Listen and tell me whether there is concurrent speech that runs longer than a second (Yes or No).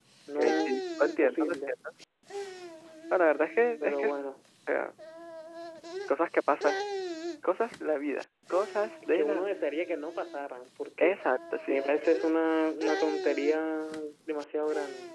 Yes